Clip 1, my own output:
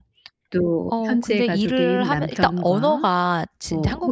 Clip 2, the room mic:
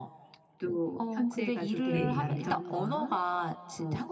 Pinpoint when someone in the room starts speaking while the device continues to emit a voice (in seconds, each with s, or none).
1.9 s